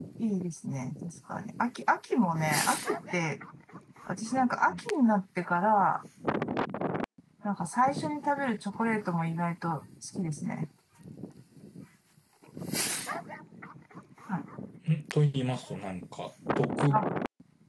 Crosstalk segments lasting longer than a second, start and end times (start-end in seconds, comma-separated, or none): none